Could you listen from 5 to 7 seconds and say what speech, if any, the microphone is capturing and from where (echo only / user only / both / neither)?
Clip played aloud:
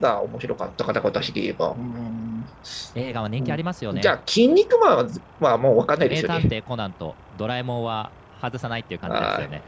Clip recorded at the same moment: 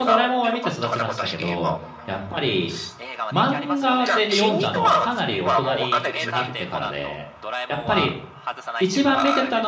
both